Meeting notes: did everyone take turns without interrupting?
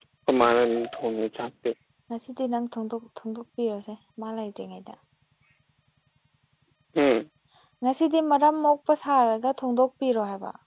Yes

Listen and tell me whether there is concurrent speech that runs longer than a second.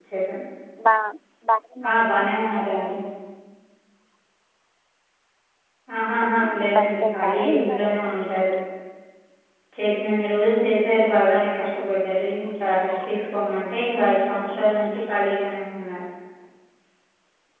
Yes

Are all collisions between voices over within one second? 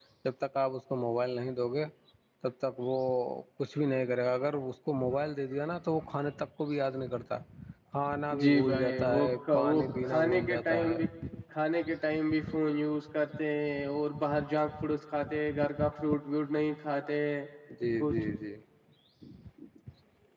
No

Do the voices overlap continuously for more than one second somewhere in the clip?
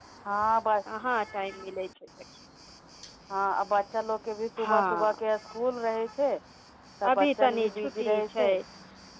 Yes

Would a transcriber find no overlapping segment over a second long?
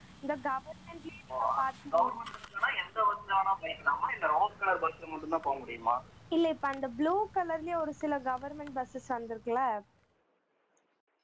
Yes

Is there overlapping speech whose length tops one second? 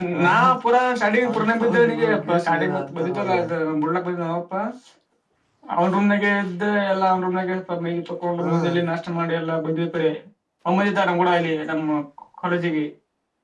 Yes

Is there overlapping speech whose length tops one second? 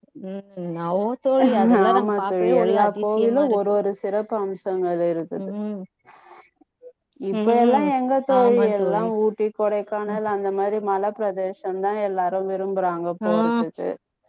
Yes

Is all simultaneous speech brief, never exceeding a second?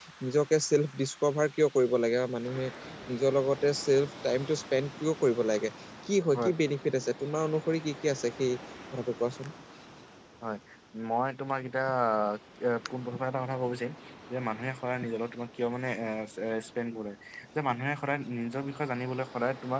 Yes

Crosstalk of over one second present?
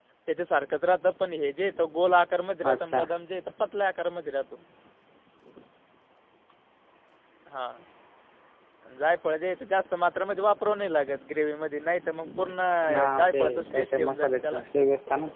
Yes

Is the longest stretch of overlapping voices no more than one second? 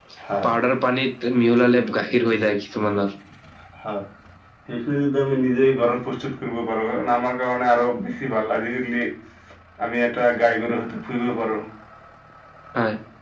Yes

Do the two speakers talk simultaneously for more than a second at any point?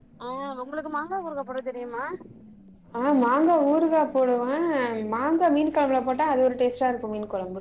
No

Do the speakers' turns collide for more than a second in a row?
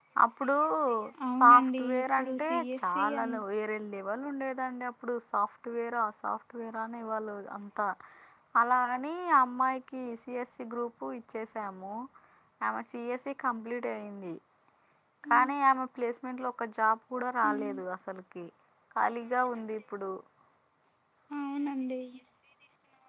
Yes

